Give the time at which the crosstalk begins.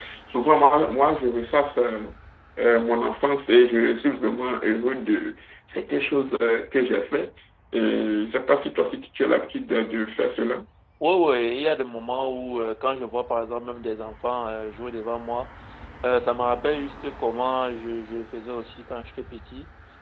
none

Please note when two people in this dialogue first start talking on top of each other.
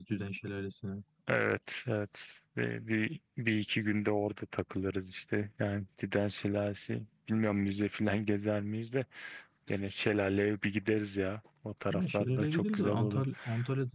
12 s

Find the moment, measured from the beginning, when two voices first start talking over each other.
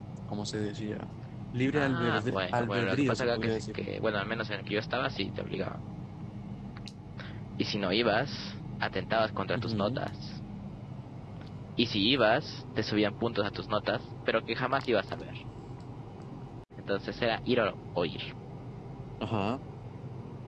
2 s

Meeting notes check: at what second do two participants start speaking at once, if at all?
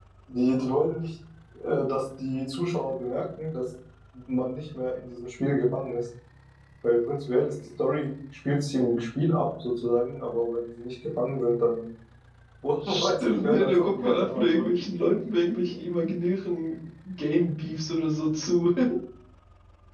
13 s

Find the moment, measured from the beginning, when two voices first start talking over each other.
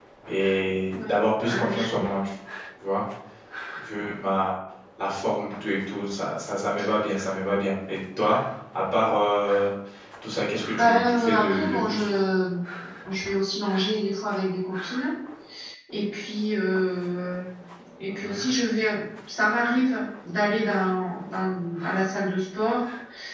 1 s

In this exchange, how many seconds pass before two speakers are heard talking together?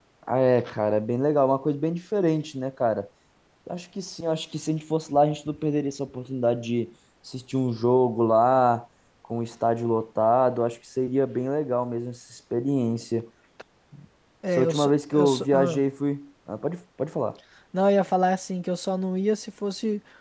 15 s

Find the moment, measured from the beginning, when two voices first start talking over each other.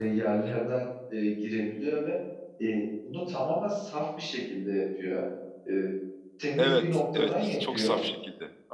7 s

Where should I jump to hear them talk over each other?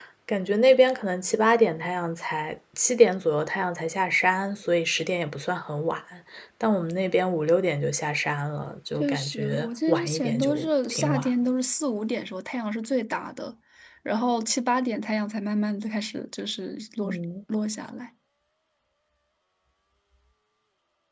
9 s

